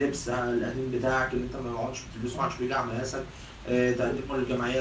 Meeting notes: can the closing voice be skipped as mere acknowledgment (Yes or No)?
Yes